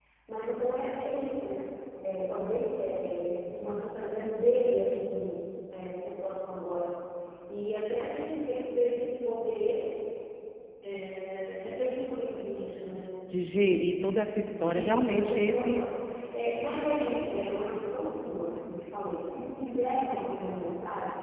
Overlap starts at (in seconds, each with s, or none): 14.6 s